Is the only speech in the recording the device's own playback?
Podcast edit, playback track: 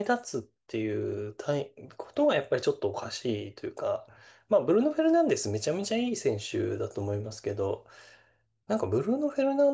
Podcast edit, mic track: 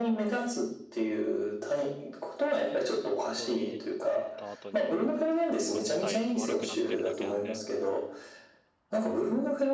No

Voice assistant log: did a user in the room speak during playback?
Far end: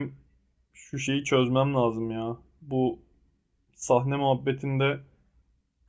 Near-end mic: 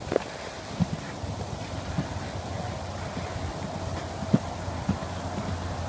No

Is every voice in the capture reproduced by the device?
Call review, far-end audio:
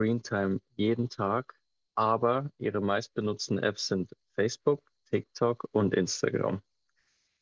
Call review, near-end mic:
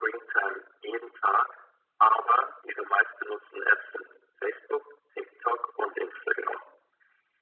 Yes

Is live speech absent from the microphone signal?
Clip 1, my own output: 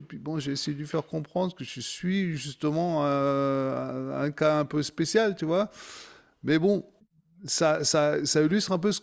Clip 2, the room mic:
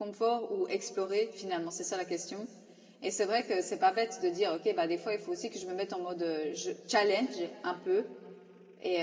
No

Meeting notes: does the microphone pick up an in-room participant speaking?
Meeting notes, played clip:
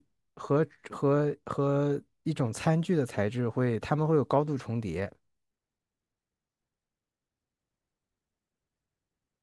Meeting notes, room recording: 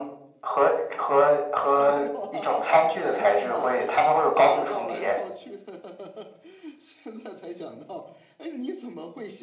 Yes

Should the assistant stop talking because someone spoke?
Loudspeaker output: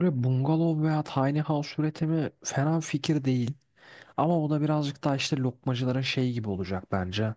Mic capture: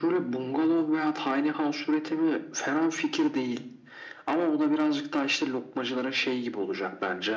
No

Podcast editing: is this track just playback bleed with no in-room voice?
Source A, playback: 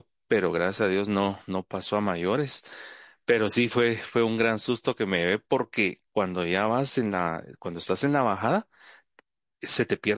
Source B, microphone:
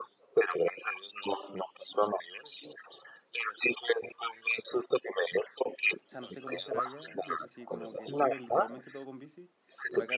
No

